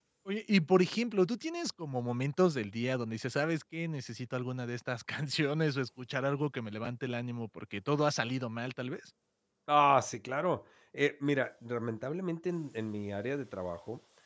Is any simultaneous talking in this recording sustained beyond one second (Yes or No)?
No